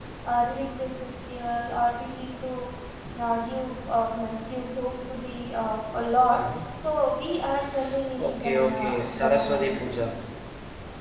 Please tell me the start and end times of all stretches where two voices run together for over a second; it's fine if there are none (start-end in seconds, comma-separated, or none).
8.2-9.8